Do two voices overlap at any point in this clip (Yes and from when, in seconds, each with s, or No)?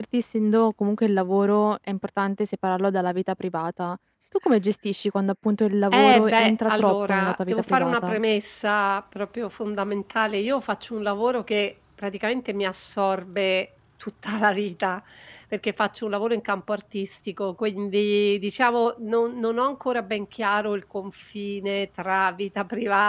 Yes, from 5.9 s